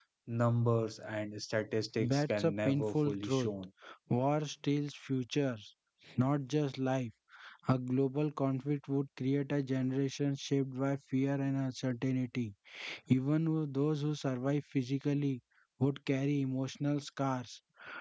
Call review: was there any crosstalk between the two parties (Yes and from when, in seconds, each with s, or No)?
Yes, from 2.0 s